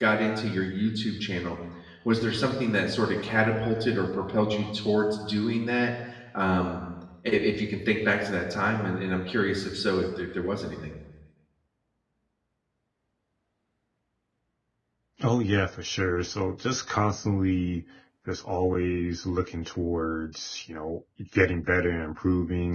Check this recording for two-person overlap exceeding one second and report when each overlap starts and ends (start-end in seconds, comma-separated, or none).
none